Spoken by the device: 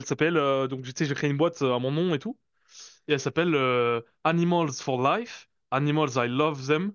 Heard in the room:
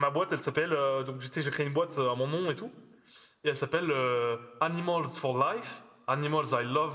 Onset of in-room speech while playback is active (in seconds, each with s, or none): none